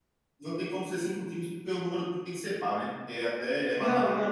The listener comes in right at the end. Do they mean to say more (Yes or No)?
Yes